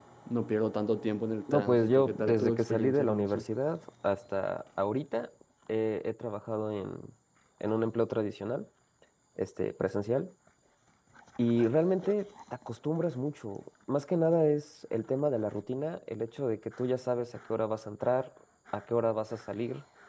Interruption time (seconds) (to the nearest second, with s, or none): 1 s